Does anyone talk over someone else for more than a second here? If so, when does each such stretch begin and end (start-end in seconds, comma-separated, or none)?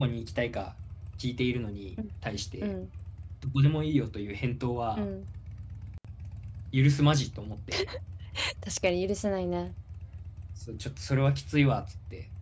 none